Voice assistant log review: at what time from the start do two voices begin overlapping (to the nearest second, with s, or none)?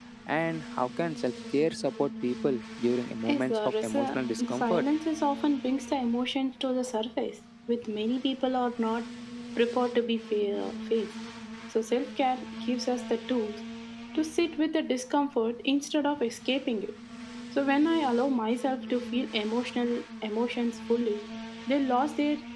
3 s